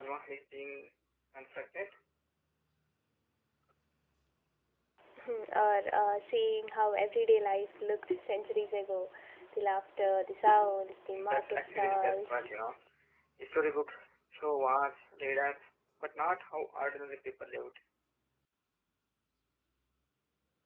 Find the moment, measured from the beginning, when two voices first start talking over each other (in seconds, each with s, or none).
11.1 s